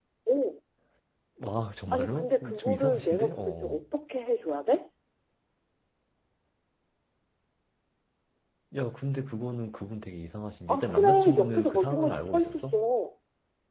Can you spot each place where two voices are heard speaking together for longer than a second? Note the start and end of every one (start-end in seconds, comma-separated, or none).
1.9-3.9, 10.7-12.8